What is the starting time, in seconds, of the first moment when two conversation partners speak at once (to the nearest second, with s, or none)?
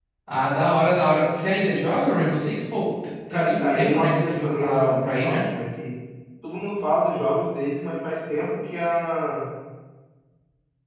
3 s